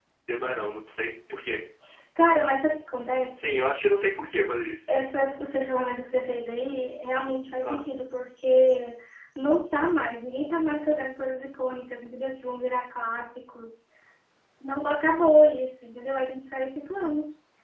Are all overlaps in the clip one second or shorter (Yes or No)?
Yes